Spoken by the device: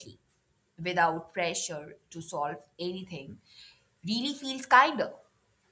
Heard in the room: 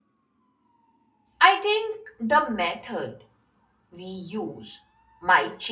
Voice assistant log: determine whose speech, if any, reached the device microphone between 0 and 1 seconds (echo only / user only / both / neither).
neither